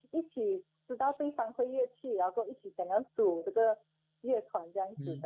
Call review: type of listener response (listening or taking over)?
taking over